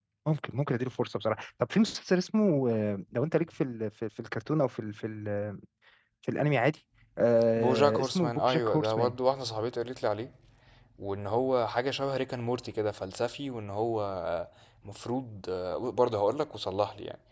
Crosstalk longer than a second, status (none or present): present